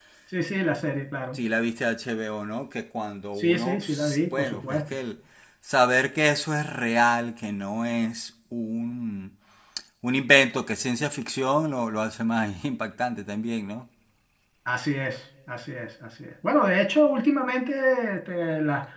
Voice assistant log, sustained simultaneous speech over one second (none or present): present